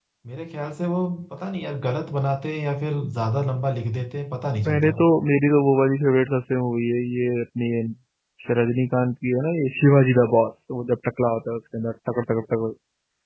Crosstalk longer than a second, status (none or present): none